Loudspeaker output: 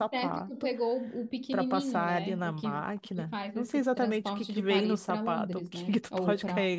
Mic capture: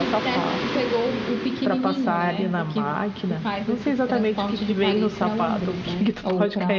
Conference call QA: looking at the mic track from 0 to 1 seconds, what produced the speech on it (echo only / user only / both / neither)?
echo only